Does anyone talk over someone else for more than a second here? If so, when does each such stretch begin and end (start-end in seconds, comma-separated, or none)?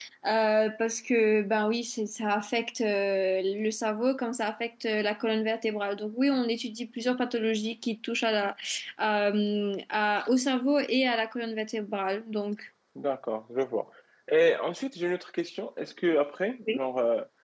none